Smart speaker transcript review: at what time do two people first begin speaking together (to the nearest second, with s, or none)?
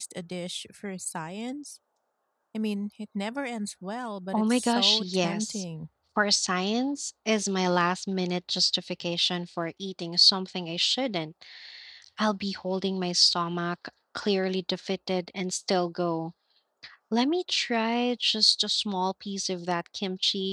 4 s